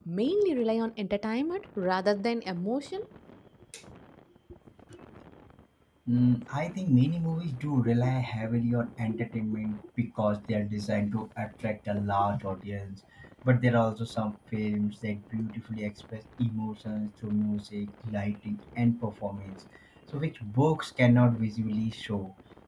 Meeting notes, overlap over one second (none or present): none